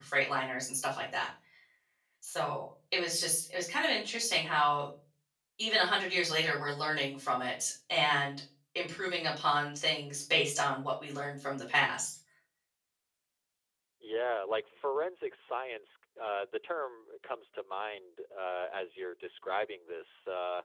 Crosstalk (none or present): none